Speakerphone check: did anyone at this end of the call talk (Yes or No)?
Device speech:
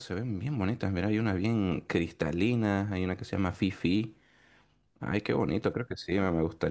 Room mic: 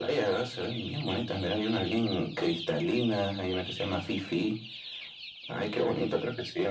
No